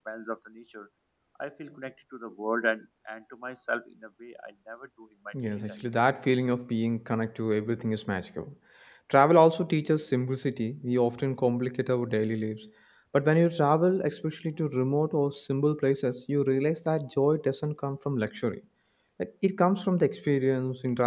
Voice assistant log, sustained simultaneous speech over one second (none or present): none